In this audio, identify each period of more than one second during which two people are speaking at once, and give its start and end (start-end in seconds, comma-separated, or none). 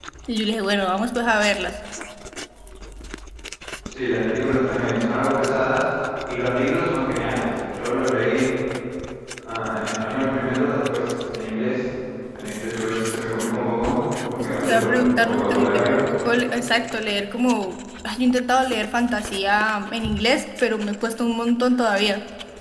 14.4-15.9